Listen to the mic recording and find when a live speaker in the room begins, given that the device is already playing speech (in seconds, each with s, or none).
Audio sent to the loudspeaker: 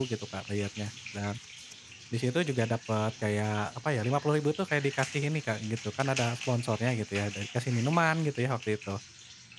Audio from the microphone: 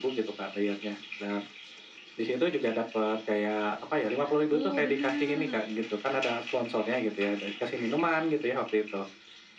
4.5 s